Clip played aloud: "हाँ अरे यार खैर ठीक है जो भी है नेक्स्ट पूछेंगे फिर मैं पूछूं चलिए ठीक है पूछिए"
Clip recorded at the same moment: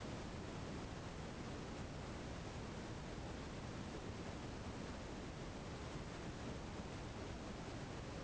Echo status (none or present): none